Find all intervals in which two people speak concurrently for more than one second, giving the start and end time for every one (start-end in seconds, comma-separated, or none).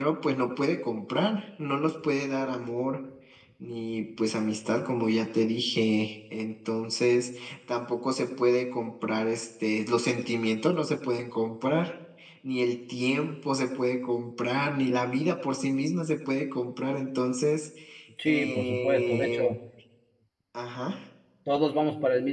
18.2-19.5